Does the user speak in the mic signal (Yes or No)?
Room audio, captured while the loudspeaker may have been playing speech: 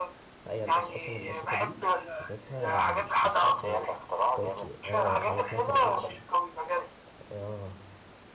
Yes